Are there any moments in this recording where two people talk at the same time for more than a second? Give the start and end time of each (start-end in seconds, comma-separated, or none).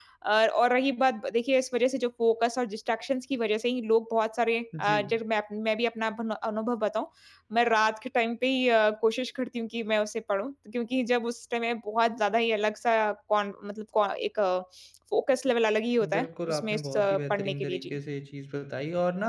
16.1-17.9